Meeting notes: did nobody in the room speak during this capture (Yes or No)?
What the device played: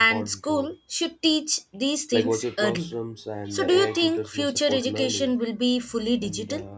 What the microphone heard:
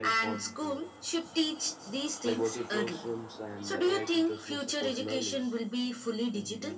Yes